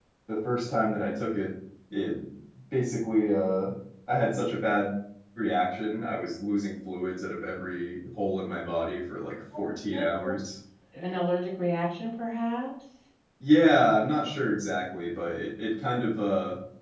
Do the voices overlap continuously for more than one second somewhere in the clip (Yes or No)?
No